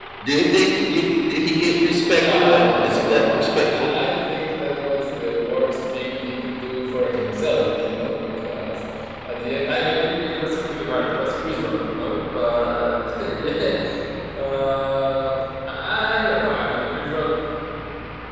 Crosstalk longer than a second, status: present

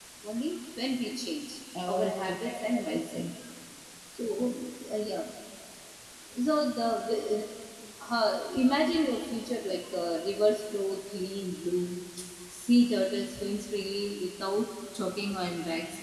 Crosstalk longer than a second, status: present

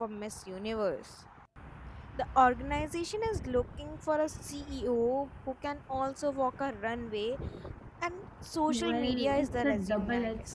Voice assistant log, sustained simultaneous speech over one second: present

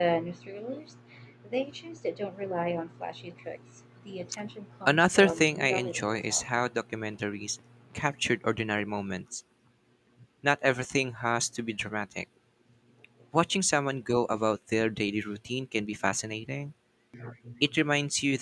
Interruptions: present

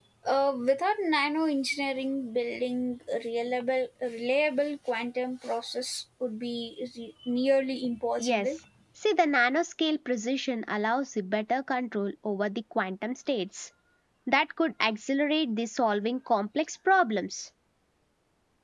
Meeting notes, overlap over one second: none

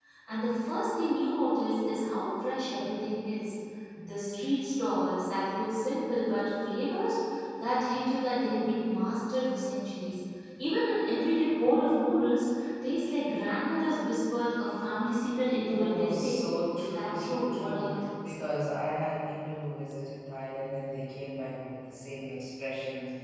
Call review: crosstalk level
present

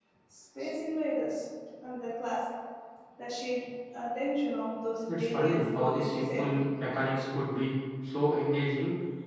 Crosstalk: present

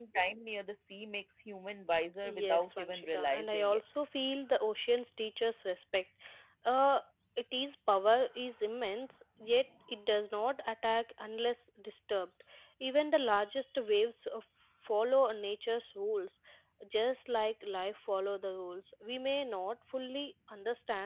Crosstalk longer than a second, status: present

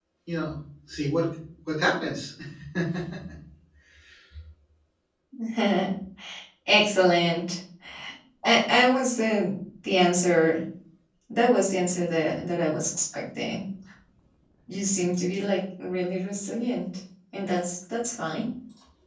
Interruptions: none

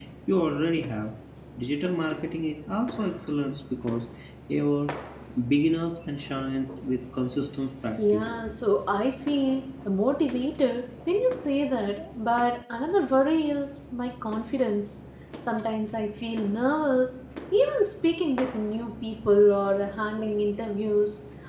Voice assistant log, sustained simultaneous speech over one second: none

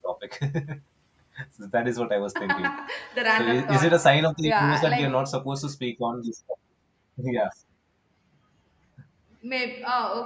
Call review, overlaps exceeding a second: present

